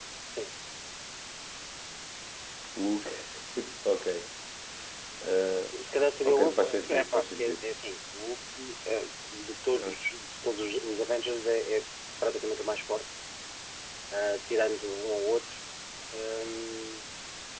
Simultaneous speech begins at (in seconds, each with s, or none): 6.3 s